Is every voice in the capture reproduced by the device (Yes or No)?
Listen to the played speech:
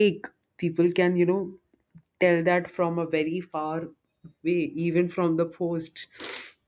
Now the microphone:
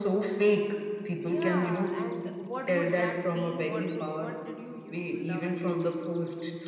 No